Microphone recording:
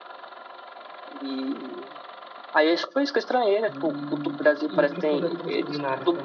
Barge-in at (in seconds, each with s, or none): 3.6 s